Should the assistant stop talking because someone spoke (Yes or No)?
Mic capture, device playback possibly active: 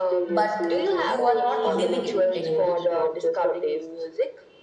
Yes